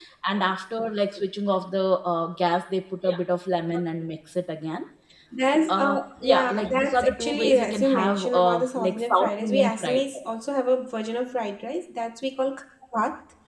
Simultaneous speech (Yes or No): Yes